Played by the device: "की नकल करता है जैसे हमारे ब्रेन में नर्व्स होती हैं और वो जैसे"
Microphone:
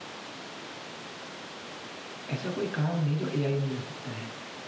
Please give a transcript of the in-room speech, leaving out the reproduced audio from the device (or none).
ऐसा कोई काम नहीं जो एआई नहीं कर सकता है